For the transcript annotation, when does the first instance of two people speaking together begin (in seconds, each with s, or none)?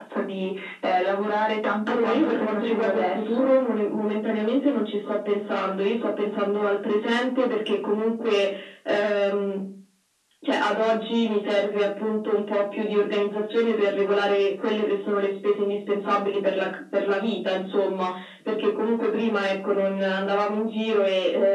1.9 s